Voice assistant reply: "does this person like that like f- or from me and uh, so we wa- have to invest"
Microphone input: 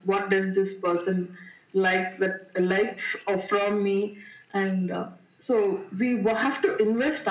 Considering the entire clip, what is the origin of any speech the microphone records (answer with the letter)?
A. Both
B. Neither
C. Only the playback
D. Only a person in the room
C